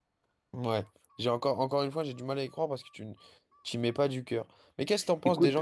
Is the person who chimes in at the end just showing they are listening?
Yes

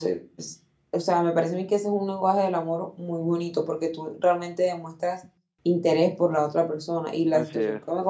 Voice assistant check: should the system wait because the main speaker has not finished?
Yes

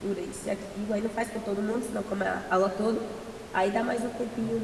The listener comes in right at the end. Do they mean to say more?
No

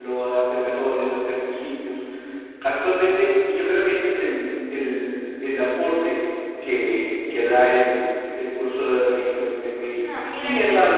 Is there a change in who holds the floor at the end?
Yes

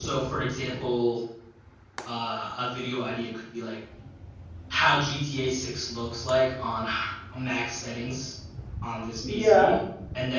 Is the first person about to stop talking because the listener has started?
No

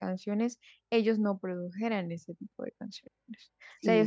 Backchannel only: Yes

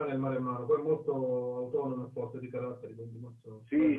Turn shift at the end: Yes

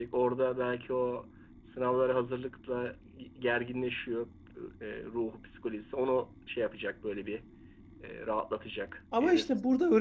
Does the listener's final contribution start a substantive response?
Yes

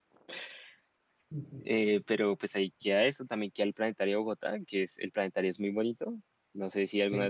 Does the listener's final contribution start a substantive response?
Yes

